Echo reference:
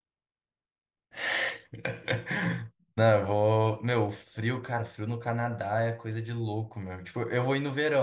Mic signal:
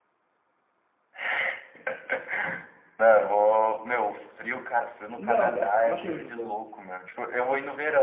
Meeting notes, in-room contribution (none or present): present